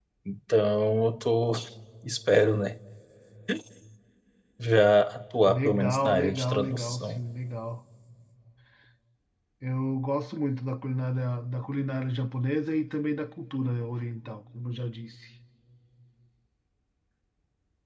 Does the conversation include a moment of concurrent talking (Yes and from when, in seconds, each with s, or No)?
Yes, from 5.4 s